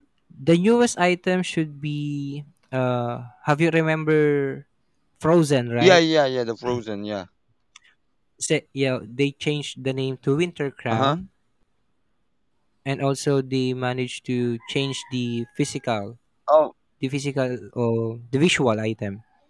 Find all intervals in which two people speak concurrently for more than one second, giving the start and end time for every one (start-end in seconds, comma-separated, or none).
none